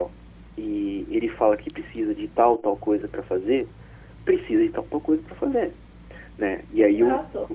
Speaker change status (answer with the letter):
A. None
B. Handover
B